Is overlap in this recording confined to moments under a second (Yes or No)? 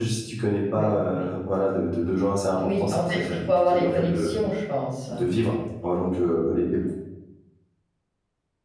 No